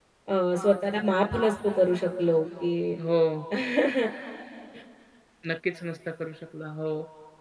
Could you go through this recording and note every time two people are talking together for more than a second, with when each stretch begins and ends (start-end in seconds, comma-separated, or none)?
none